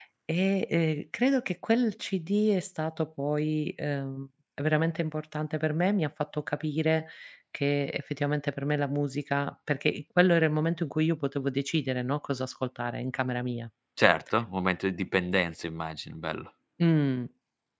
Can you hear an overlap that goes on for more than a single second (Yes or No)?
No